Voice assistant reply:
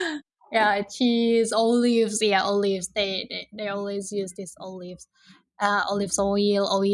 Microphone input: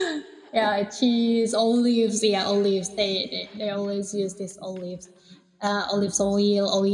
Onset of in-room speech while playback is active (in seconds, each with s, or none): none